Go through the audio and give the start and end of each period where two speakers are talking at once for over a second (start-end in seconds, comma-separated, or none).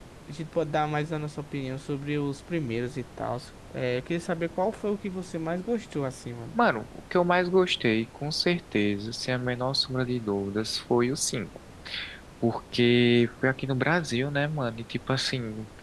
none